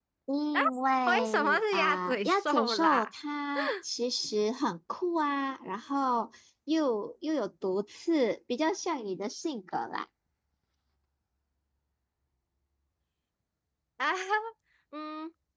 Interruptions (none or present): present